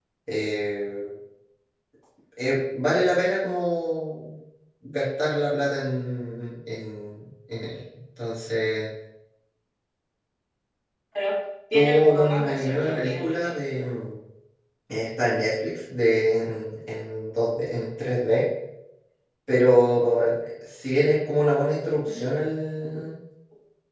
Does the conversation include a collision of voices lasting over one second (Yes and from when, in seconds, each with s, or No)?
Yes, from 11.7 s